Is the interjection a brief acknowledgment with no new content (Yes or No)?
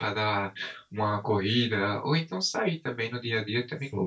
No